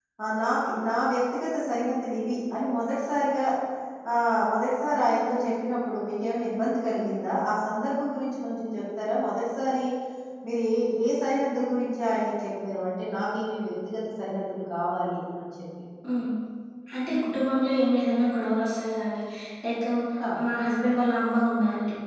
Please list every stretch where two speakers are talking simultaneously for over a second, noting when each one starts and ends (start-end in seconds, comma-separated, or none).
none